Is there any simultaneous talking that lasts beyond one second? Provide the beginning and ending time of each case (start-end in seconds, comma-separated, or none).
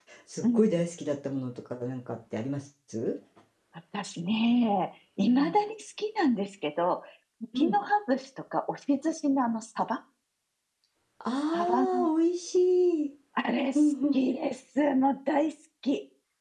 none